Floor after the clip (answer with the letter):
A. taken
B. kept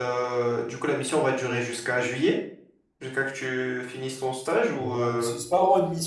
A